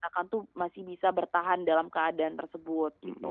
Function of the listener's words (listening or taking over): taking over